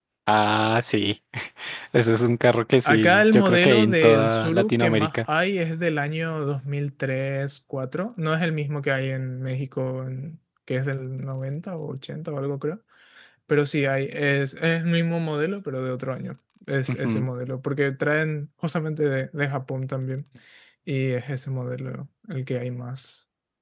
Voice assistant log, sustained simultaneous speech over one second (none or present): present